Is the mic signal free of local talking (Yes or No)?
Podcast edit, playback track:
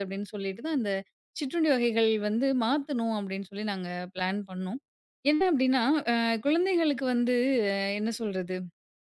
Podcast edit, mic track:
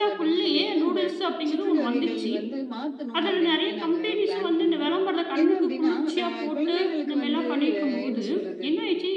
No